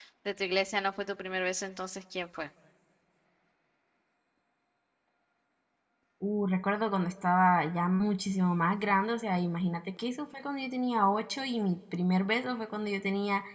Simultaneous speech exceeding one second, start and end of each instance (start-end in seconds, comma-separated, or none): none